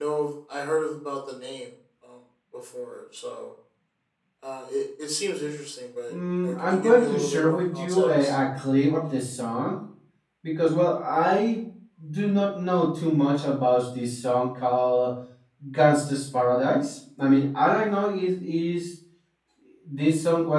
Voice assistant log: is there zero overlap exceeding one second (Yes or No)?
No